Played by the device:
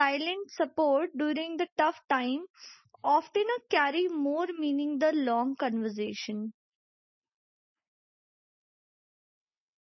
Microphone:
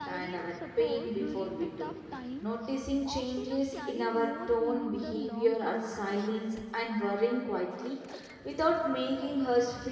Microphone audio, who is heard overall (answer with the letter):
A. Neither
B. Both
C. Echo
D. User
B